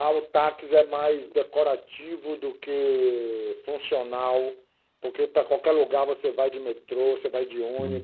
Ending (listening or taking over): listening